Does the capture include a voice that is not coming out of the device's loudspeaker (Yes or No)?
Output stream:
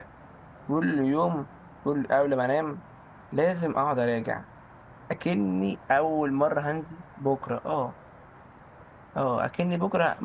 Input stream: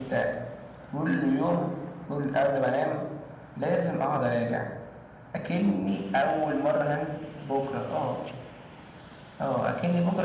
No